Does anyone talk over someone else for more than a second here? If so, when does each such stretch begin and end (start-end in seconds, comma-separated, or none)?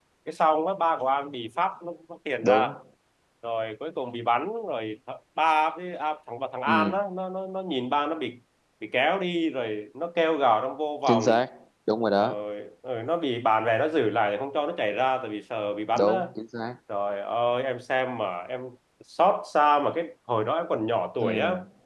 none